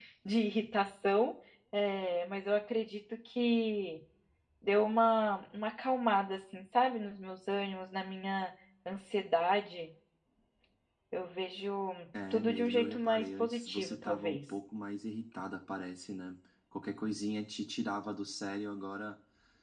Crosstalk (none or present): present